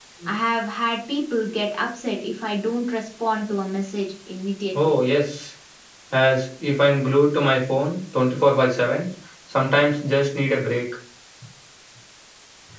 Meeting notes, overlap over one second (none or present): none